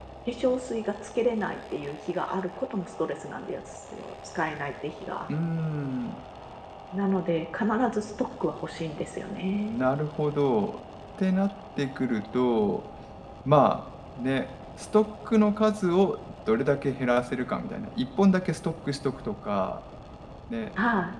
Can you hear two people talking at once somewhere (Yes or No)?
No